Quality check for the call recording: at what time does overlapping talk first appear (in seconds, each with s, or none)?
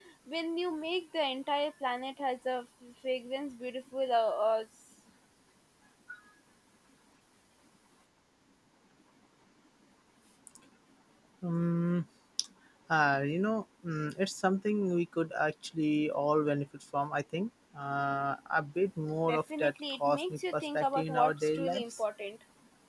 19.3 s